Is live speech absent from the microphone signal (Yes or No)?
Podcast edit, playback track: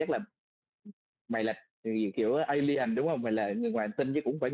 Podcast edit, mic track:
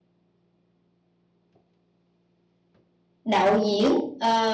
No